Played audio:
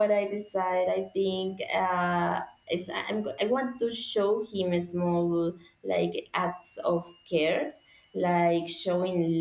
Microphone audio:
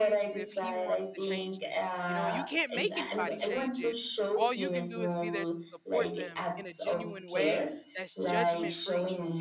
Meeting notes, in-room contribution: present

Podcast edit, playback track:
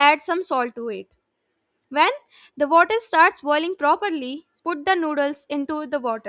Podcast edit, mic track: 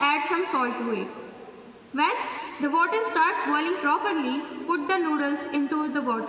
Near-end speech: none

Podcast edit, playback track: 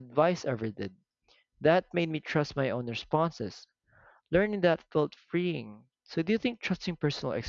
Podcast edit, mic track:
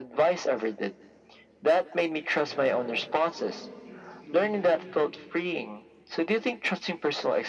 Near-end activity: present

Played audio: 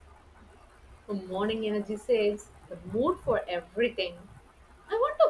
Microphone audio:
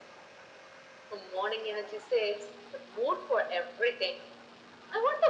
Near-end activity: none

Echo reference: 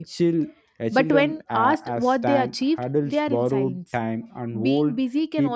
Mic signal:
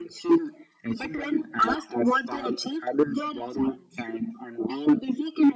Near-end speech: none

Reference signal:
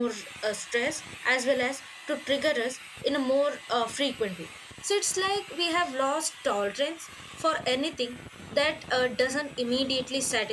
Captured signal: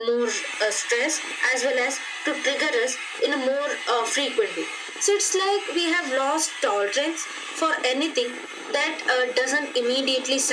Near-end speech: none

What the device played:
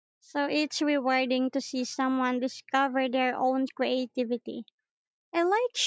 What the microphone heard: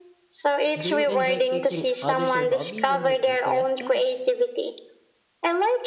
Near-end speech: present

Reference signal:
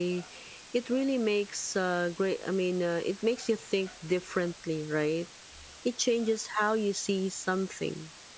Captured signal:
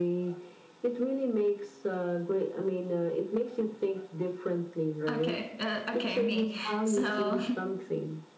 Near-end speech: present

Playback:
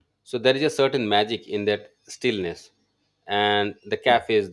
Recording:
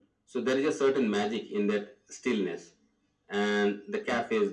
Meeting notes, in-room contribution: none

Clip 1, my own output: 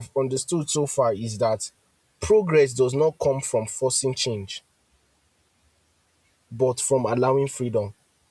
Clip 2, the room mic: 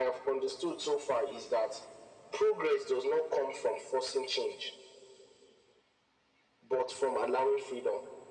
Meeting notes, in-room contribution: none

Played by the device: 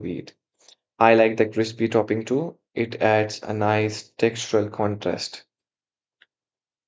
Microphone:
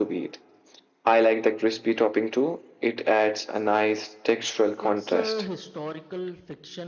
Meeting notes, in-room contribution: present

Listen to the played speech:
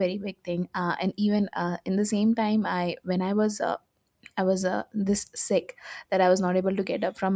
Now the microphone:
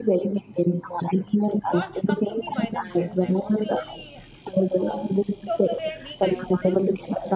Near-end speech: present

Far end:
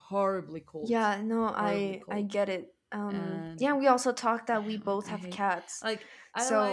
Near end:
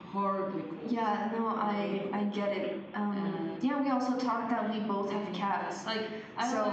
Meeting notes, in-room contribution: none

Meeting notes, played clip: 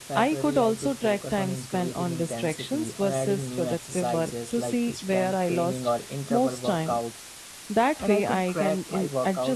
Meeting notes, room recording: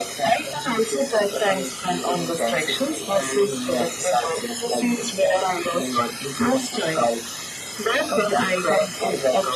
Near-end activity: none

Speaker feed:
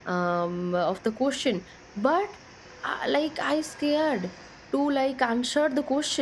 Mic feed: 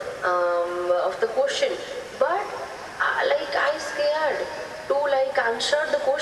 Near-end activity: none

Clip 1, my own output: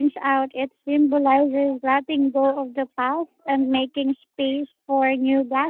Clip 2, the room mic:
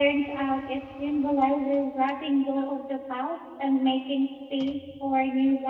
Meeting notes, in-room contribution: none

